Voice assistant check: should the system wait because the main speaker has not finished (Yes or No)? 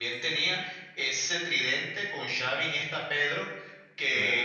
Yes